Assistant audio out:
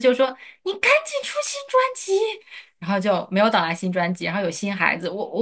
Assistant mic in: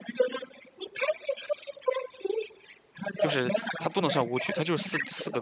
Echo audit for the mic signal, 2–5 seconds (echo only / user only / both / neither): both